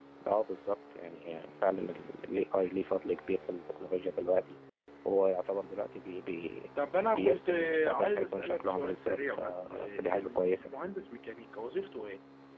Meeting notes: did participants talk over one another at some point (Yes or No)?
Yes